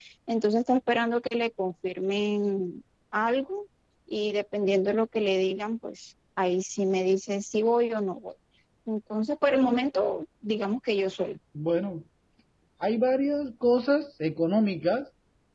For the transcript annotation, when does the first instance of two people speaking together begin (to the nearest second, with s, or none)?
none